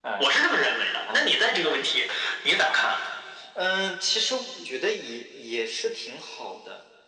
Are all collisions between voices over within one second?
Yes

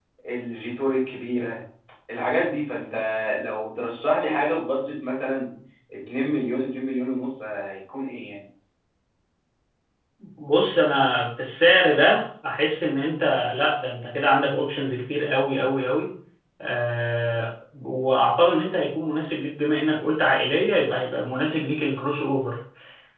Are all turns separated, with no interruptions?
Yes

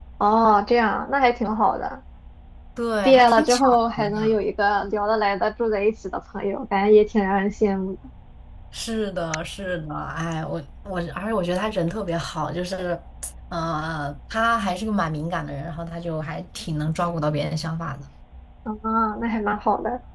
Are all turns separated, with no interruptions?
No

